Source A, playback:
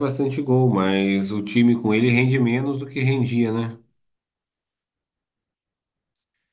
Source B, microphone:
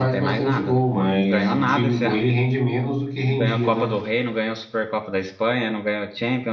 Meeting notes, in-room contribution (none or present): present